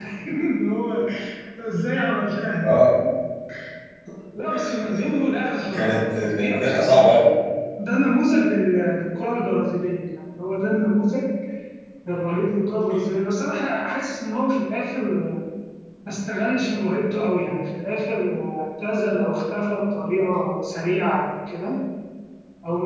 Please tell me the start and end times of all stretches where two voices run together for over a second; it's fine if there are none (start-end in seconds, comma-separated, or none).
5.7-7.2